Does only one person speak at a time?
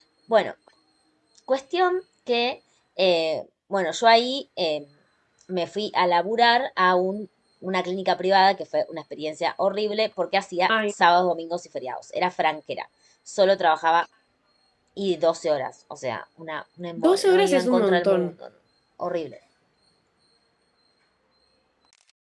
No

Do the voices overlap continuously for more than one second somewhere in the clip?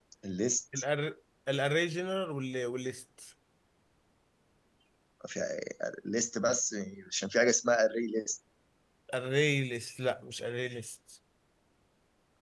No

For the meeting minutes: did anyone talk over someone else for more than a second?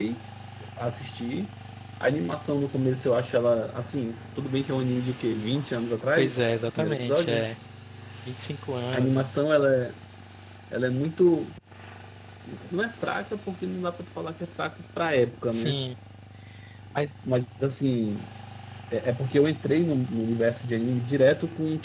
Yes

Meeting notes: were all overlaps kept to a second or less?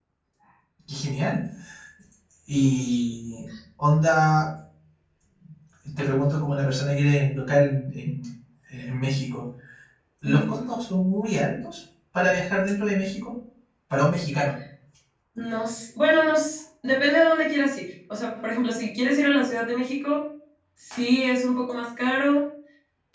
Yes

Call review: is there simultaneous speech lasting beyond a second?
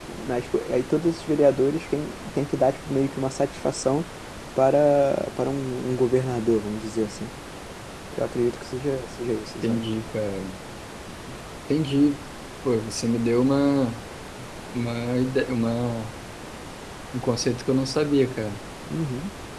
No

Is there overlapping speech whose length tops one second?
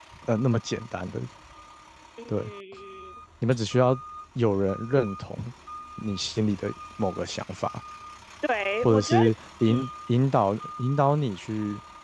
No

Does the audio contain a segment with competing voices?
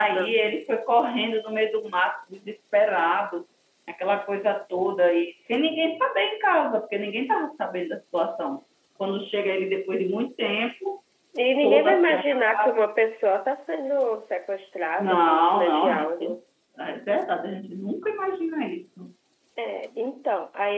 Yes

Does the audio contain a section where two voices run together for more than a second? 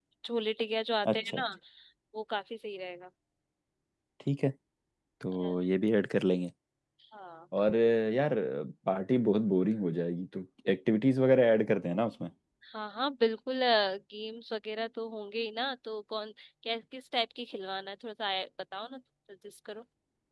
No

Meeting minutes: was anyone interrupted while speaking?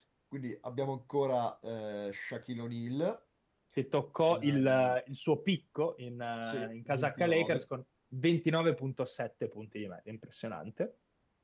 Yes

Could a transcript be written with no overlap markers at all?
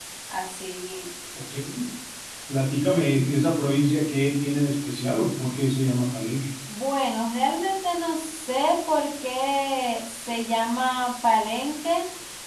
Yes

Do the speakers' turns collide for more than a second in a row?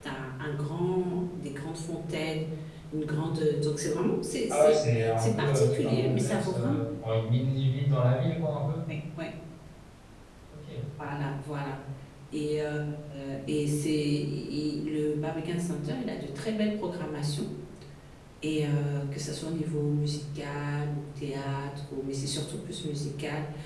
Yes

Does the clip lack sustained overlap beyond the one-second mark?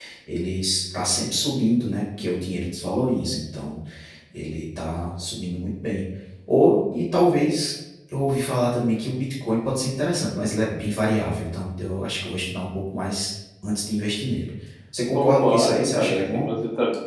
No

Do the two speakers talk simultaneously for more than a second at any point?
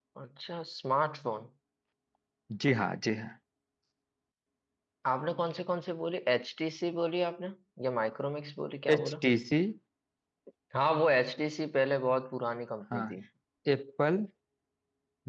No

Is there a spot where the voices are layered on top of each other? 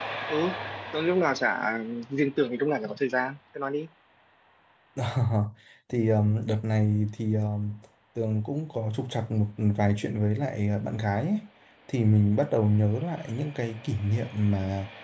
No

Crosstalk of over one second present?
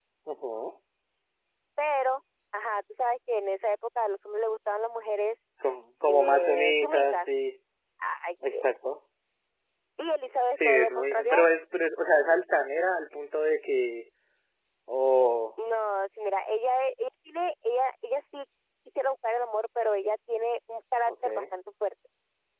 Yes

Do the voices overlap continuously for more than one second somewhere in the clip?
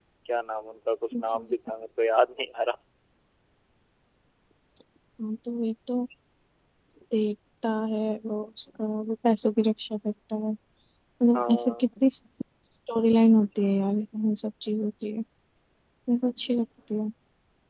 No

